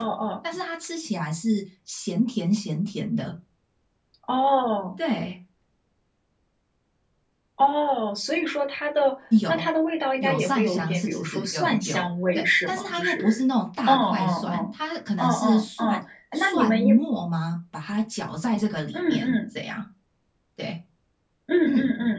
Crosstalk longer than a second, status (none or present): present